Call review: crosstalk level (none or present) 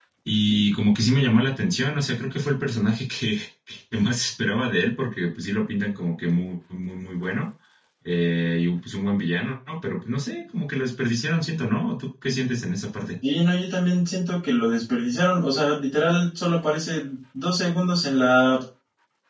none